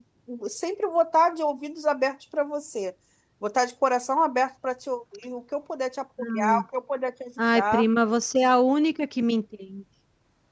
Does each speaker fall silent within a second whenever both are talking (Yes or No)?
Yes